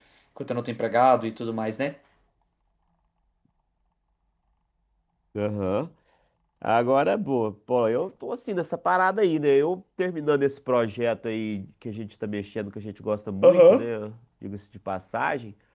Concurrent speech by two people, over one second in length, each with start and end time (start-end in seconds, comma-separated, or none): none